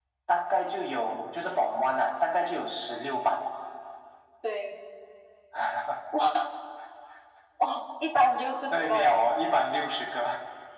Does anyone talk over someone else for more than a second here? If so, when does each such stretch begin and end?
none

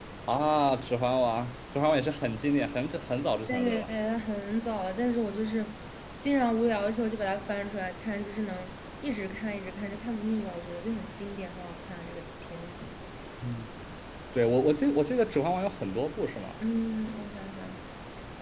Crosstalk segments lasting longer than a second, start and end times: none

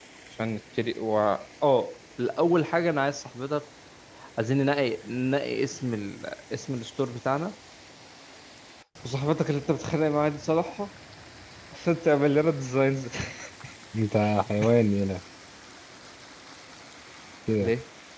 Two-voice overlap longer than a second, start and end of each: none

